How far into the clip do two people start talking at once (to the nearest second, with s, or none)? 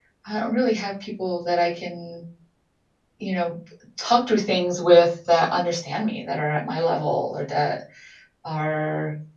none